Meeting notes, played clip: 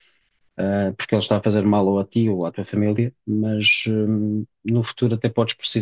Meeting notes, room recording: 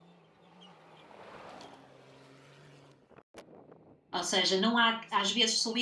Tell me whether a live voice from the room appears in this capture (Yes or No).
Yes